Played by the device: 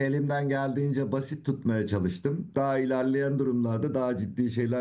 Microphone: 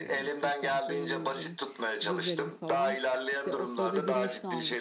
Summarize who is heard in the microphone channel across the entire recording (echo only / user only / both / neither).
both